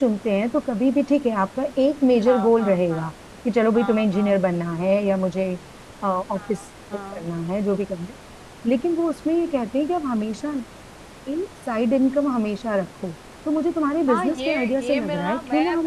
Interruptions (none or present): present